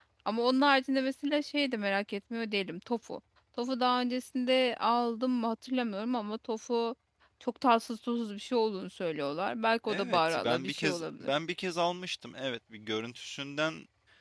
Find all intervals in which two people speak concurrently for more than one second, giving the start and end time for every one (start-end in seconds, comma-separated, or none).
9.9-11.3